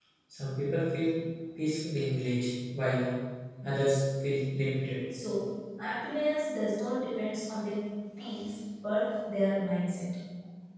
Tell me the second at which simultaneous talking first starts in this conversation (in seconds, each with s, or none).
none